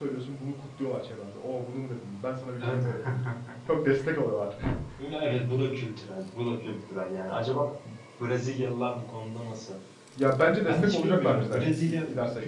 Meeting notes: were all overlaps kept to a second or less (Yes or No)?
No